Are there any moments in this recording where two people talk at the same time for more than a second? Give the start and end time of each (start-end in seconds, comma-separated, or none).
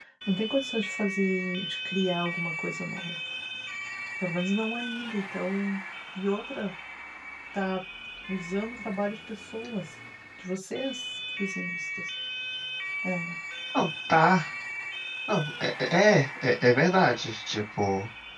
none